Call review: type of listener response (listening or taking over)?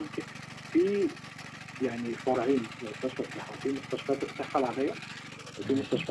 listening